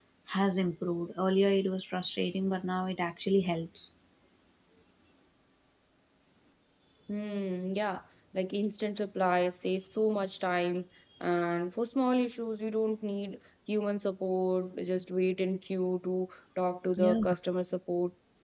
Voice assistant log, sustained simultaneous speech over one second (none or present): none